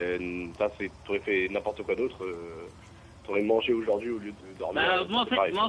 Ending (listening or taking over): taking over